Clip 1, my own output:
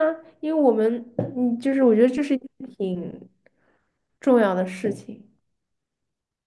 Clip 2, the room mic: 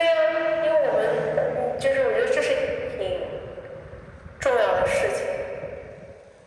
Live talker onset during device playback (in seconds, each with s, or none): none